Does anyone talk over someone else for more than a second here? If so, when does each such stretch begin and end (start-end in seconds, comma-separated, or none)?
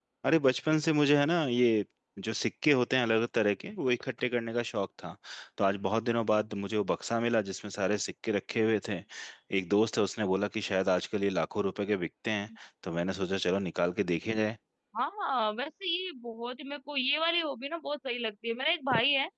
none